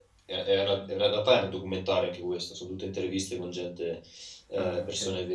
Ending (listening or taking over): listening